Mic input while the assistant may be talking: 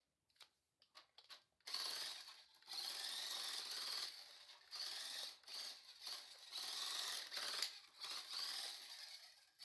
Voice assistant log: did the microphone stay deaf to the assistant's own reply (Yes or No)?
Yes